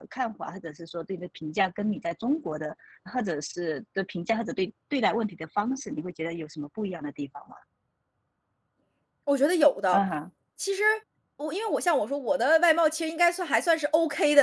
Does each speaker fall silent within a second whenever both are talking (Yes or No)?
Yes